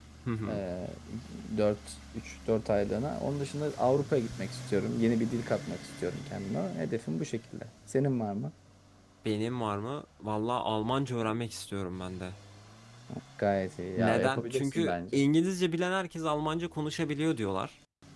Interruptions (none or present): present